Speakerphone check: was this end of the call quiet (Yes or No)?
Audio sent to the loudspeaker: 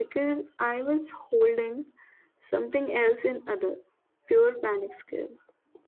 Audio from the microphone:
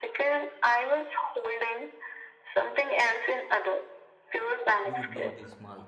No